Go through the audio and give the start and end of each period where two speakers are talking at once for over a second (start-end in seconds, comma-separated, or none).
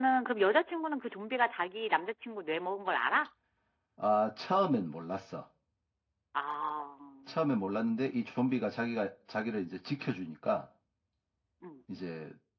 none